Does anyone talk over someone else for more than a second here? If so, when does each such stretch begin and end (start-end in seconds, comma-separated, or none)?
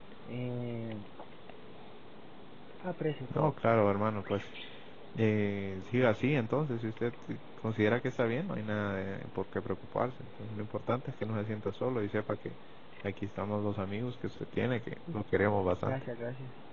none